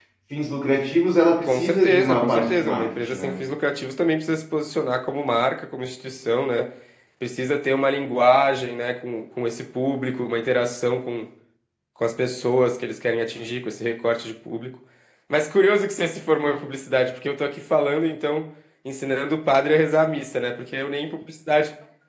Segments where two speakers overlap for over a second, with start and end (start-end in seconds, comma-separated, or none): 1.4-3.3